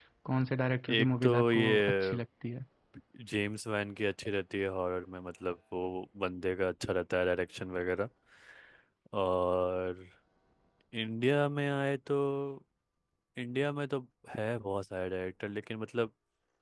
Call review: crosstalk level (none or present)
present